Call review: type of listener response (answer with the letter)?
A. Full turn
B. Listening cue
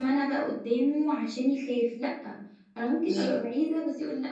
B